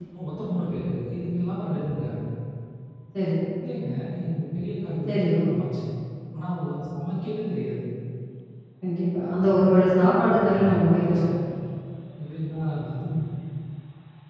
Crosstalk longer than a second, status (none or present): present